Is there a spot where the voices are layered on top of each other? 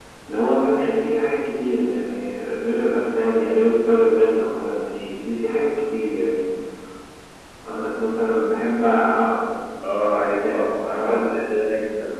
Yes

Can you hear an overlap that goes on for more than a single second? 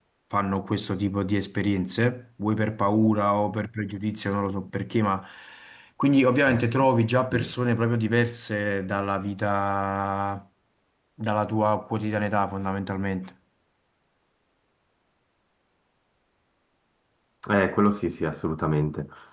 No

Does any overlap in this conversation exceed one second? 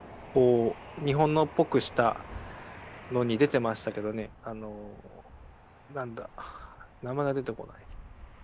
No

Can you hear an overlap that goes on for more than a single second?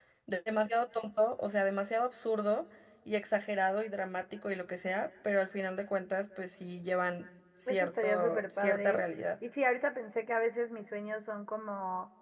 Yes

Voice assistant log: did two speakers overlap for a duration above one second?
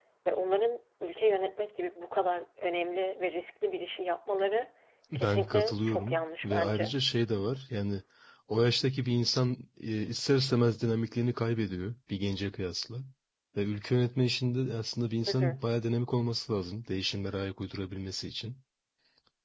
Yes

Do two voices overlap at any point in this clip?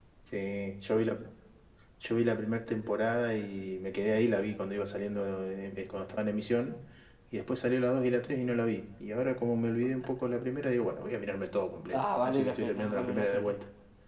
Yes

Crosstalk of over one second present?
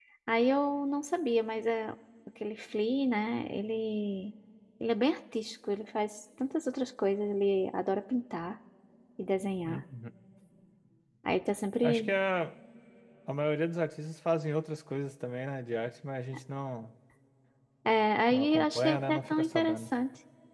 Yes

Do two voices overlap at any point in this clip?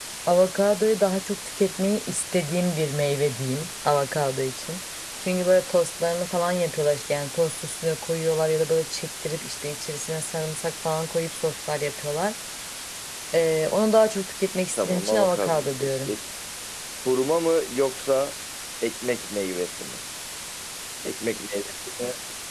Yes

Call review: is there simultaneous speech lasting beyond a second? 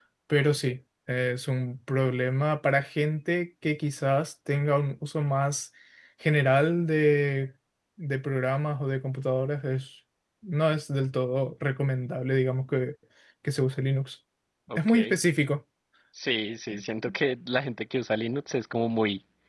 No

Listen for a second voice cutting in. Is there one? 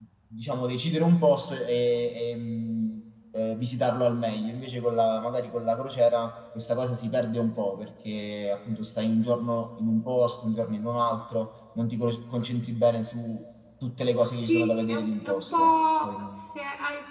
Yes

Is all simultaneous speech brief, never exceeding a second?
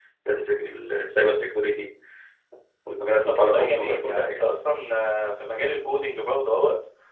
No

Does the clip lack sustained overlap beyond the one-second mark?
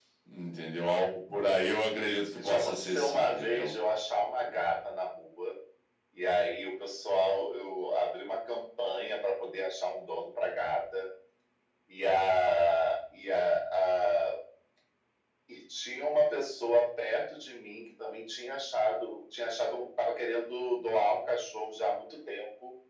No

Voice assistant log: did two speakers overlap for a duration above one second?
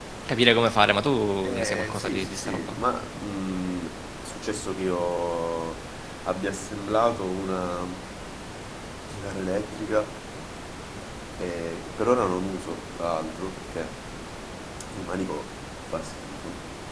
Yes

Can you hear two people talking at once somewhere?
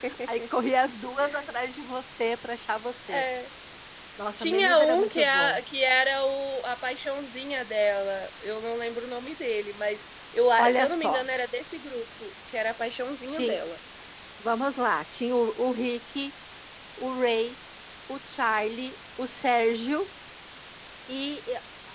Yes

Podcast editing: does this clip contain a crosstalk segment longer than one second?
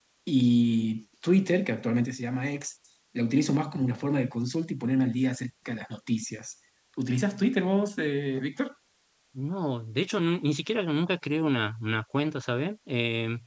No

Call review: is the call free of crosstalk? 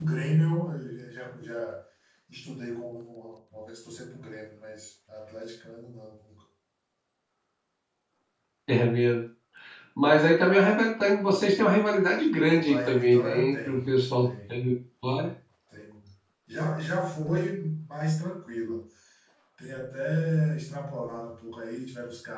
No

